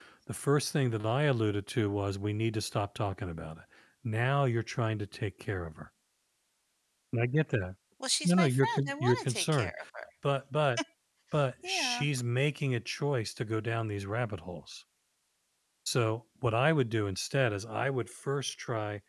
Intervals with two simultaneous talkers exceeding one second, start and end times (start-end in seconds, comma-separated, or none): 8.2-9.7